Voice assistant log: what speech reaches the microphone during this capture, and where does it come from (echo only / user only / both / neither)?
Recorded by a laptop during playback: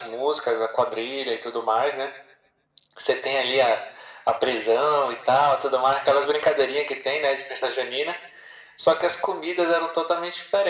echo only